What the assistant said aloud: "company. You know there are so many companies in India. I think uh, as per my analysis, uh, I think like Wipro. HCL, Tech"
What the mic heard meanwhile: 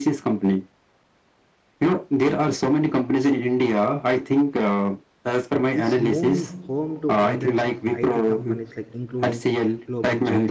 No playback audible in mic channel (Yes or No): No